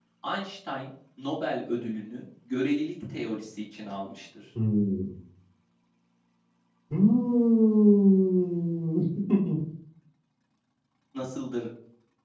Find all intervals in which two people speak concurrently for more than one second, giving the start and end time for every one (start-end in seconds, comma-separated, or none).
none